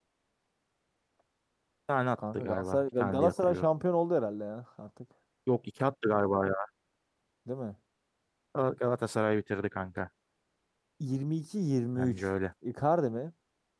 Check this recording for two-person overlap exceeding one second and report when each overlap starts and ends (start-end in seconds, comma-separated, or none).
2.3-3.6